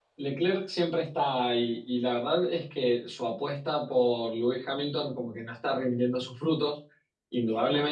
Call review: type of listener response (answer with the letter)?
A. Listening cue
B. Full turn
A